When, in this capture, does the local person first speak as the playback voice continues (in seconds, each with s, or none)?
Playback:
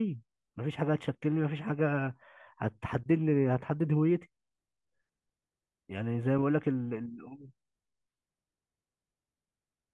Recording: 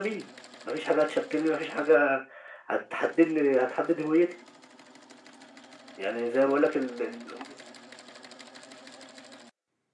none